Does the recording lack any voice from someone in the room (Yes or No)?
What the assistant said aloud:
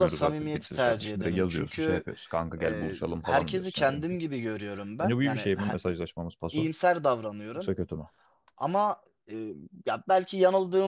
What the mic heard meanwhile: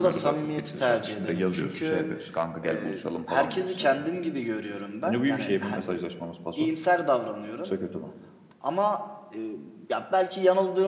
Yes